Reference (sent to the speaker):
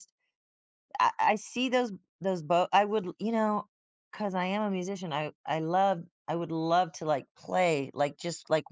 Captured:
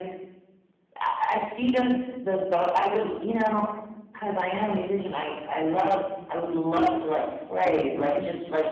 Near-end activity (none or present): present